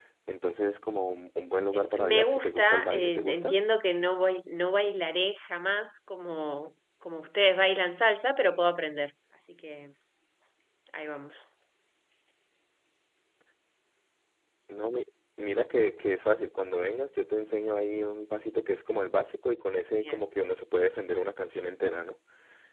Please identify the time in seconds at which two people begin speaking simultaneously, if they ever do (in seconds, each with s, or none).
1.7 s